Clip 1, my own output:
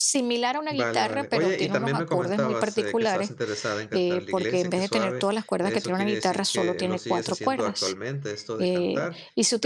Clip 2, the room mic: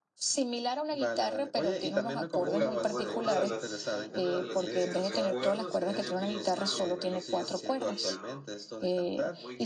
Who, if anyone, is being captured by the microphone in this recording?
both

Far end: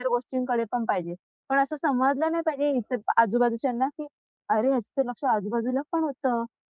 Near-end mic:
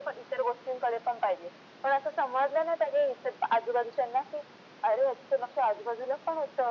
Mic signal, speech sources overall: echo only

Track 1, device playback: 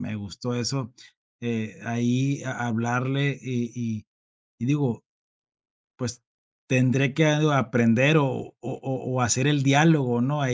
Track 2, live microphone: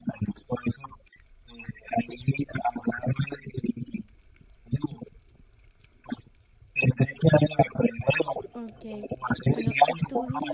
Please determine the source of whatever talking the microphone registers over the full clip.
both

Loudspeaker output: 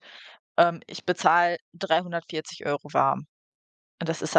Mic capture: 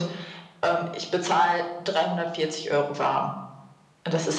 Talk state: echo only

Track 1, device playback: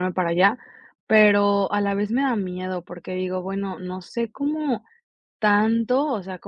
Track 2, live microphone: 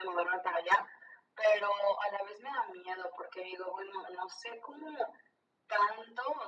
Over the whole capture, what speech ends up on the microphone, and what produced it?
echo only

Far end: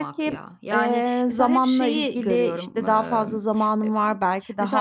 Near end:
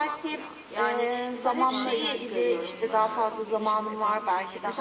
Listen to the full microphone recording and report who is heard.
both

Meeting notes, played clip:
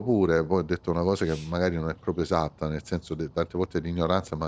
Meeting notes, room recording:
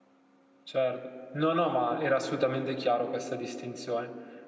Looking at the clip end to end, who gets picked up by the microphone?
user only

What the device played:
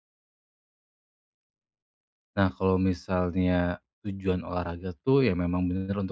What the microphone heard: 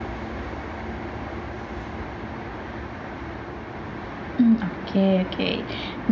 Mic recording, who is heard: user only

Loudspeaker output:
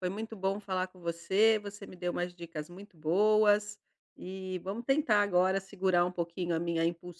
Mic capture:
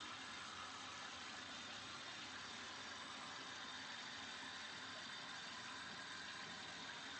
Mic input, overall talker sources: neither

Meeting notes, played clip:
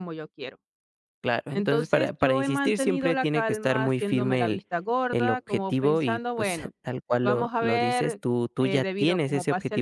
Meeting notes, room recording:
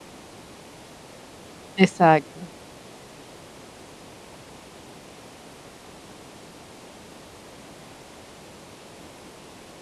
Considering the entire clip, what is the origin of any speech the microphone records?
user only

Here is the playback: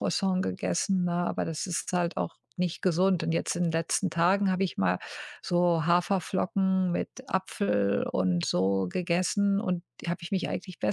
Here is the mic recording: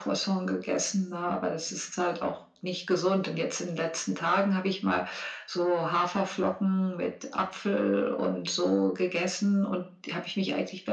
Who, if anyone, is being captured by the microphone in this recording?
echo only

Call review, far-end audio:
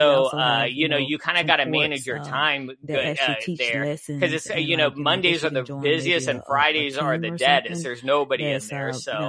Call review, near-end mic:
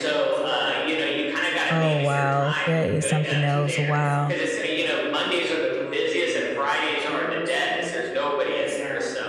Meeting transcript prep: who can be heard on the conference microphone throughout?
both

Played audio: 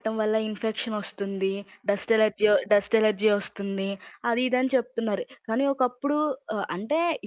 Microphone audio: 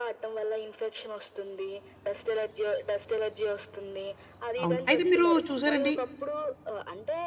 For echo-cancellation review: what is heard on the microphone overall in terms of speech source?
both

